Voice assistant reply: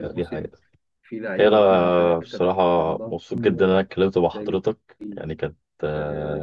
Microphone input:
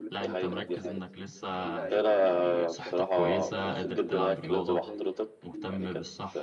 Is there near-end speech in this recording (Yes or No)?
Yes